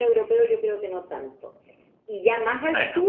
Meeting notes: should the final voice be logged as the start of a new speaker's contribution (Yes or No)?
No